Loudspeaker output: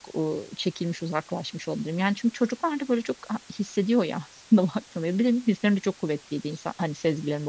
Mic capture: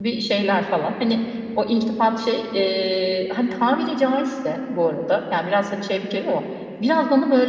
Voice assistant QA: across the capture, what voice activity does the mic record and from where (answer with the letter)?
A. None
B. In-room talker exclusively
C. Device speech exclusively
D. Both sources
B